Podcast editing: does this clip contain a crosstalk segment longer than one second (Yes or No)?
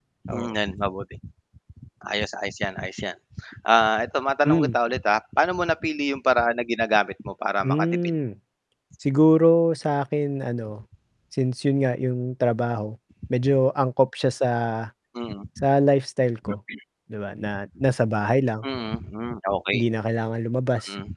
No